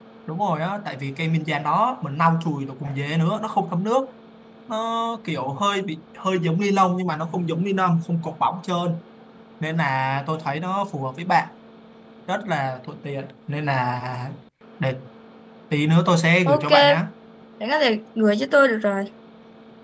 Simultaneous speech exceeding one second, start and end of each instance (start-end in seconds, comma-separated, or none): none